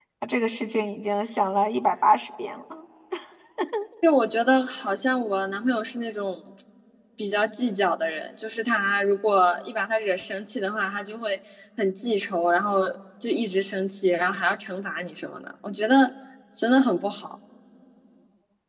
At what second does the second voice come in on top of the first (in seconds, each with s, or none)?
none